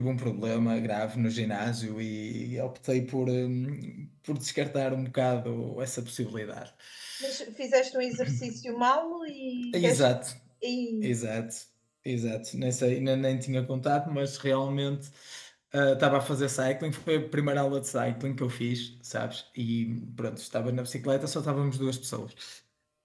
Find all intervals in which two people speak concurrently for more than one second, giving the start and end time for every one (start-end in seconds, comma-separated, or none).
none